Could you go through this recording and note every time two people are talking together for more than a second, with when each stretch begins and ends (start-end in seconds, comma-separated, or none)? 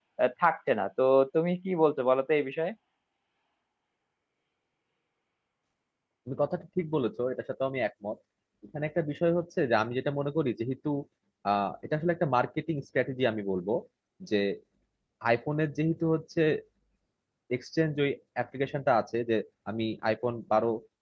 none